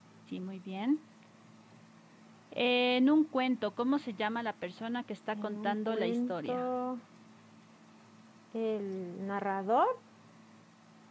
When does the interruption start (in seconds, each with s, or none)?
5.3 s